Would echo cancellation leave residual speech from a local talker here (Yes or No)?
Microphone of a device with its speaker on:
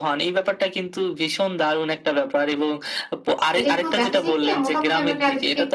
Yes